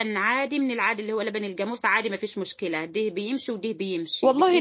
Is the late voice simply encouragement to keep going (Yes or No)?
No